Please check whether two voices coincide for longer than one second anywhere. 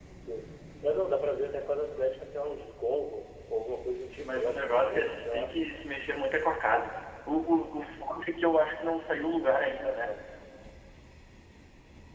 Yes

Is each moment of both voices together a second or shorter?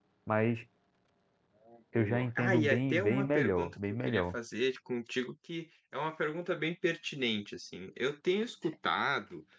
No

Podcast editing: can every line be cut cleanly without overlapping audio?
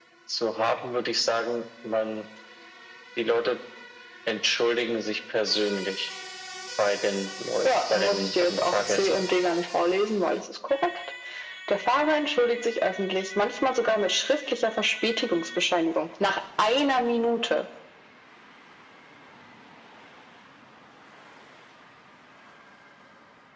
No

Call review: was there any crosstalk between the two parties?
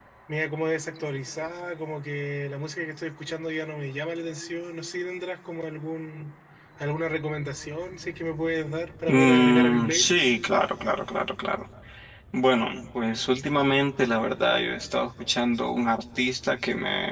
Yes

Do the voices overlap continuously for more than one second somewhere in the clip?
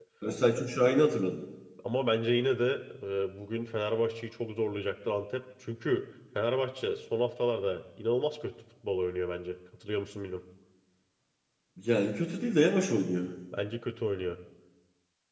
No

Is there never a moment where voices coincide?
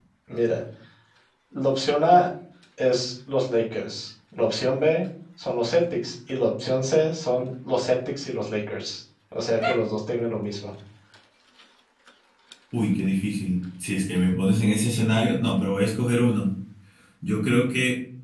Yes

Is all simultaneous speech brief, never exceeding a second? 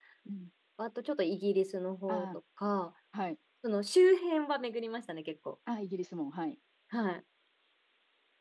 Yes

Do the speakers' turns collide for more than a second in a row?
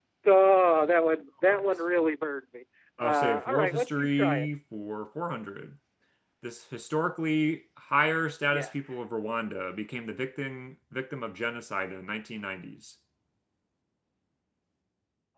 Yes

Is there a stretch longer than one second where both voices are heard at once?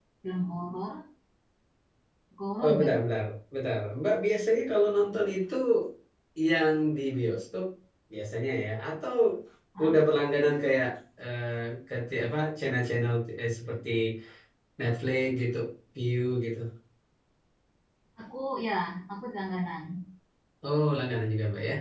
No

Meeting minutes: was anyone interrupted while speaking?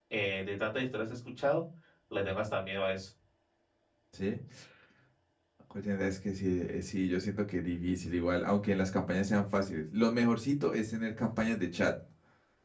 No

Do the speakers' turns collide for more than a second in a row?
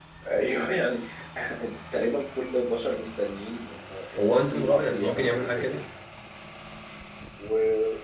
Yes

